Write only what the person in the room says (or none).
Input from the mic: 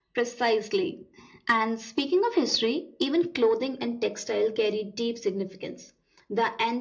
none